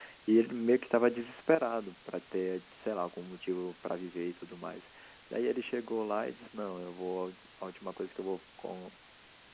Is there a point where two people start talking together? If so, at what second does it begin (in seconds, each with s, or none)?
none